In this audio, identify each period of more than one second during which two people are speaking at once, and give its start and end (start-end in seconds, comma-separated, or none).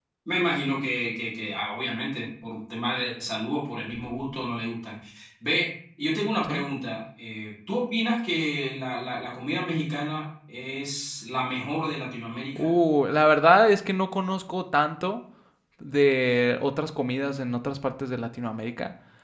none